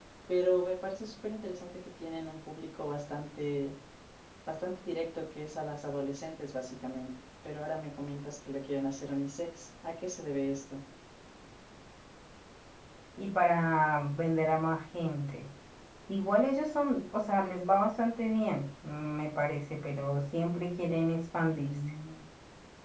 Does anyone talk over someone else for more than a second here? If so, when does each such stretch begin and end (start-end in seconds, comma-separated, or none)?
none